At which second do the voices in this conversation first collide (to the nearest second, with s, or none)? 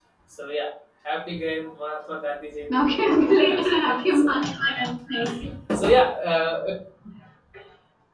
3 s